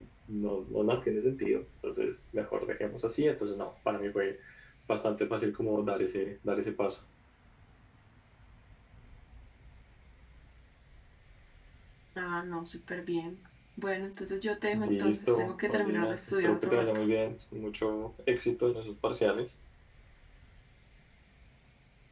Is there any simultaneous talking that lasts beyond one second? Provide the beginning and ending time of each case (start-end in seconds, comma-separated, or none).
14.7-17.0